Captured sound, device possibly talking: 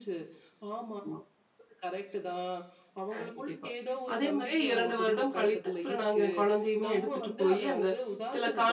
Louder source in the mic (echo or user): user